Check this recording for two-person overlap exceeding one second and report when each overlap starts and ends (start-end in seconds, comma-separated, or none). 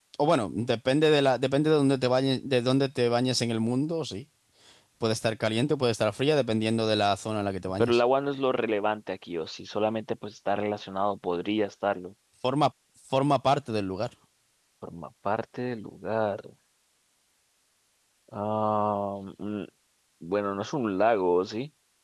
none